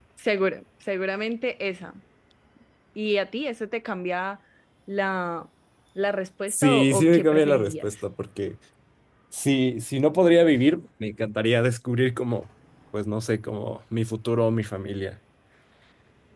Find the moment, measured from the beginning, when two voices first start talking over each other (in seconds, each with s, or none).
6.5 s